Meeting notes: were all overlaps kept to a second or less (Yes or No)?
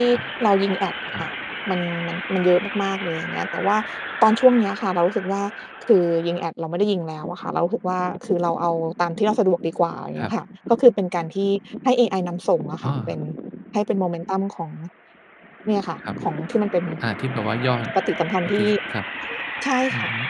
Yes